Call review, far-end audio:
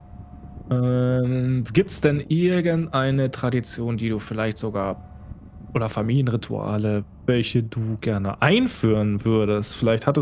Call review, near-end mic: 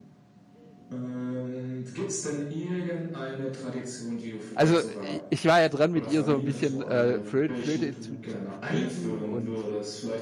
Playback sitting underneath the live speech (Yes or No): Yes